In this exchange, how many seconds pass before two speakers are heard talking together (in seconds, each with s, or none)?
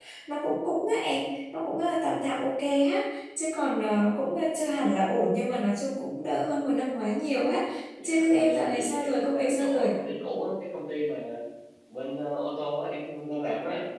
8.0 s